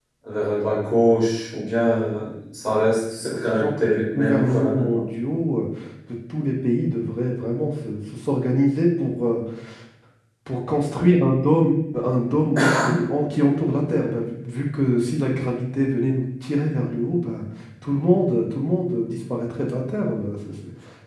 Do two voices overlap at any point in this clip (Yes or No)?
Yes